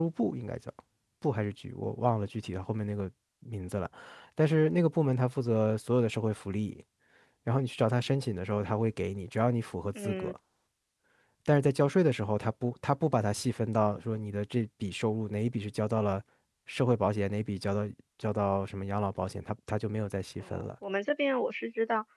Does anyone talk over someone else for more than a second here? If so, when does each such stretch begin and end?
none

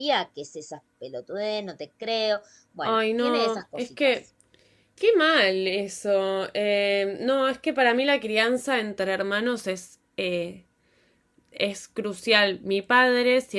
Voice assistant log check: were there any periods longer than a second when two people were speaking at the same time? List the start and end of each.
2.8-4.1

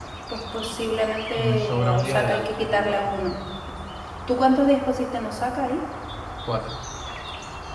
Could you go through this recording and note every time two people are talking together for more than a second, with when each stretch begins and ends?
1.4-3.2

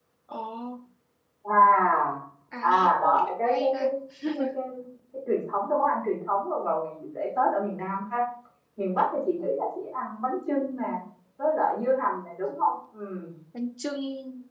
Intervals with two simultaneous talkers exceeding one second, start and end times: 2.6-3.9

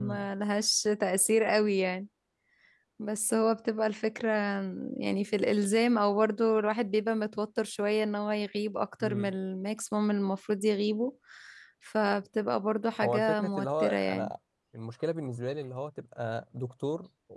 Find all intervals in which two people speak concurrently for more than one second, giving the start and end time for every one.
13.0-14.3

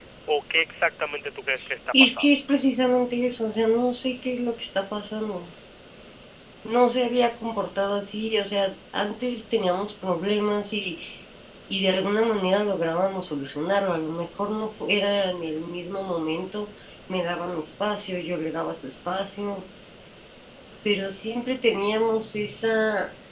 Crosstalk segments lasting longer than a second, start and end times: none

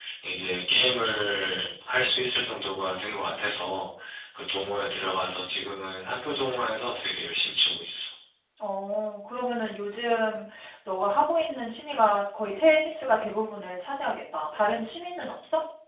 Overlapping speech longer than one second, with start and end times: none

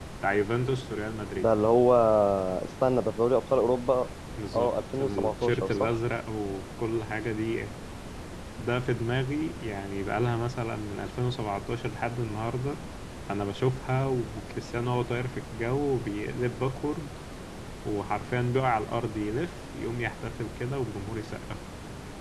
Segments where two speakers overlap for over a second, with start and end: 4.5-6.0

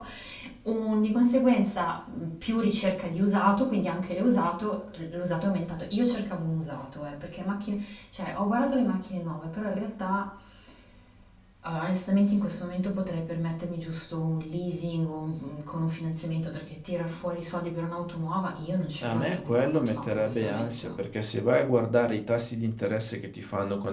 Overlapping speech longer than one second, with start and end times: 19.0-20.9

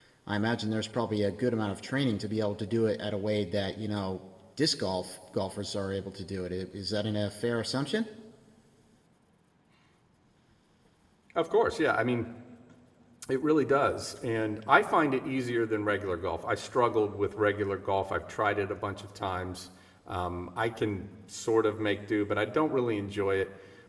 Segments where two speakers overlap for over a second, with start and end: none

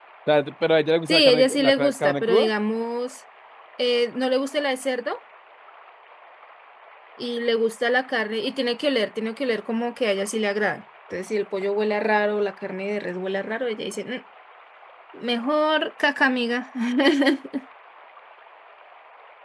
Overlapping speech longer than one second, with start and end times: 1.1-2.5

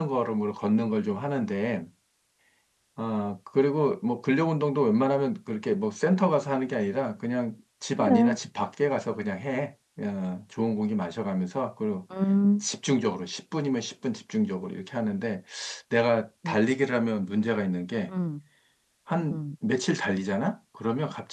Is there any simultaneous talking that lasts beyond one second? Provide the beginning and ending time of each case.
none

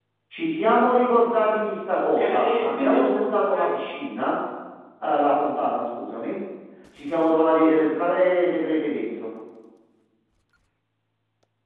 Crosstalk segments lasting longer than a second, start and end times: 1.9-3.8

